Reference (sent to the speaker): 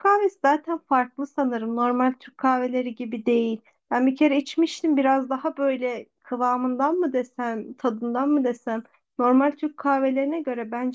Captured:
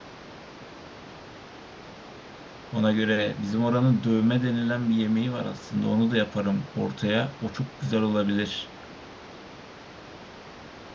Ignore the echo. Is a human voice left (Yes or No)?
Yes